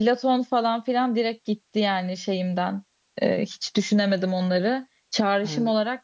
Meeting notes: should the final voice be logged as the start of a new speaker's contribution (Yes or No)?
No